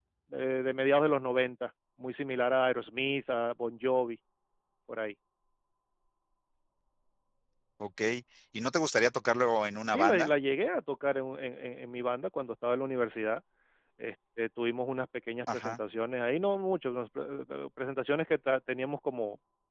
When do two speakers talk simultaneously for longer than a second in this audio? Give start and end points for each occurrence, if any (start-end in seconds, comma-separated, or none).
none